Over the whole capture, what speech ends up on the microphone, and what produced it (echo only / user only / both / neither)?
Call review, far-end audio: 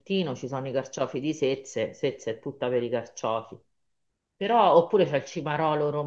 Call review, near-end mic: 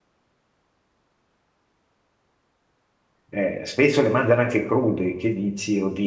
user only